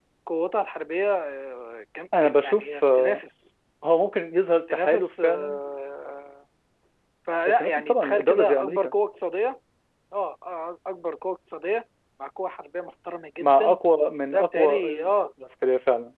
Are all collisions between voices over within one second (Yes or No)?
No